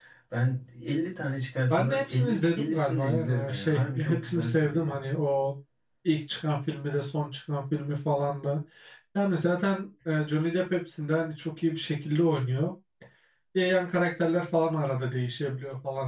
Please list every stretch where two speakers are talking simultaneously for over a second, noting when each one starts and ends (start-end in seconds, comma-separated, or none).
1.7-5.0